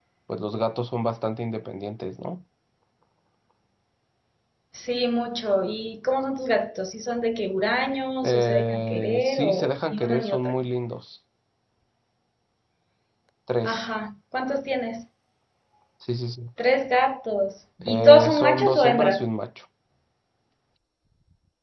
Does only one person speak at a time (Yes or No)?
No